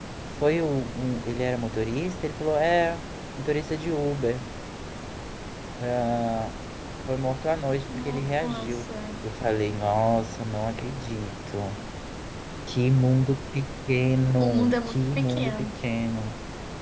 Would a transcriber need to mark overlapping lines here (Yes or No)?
Yes